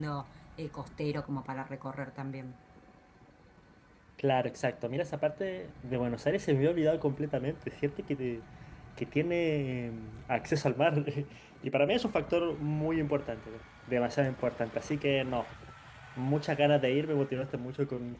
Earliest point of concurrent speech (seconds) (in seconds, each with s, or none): none